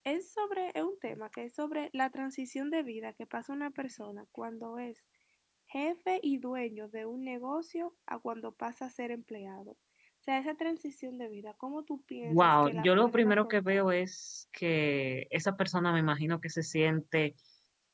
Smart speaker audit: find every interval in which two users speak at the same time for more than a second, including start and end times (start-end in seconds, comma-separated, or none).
12.2-13.8